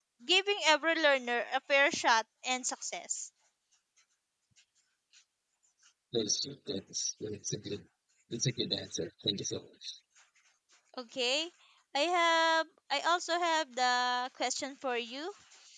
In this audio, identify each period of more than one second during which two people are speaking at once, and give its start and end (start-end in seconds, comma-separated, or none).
none